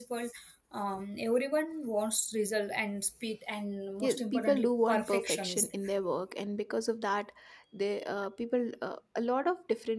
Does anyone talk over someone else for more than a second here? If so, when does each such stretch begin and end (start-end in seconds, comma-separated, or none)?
4.0-5.7